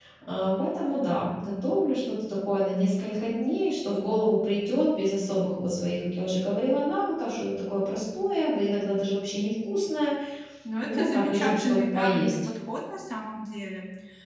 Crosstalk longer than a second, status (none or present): present